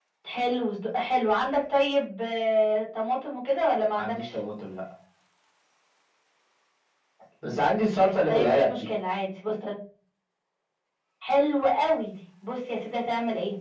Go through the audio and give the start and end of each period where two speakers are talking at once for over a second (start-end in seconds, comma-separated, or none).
7.4-8.9